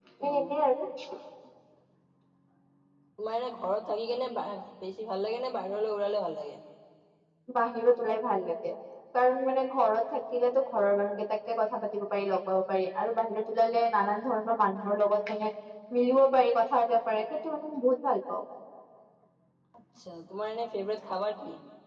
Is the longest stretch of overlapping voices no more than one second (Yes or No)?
Yes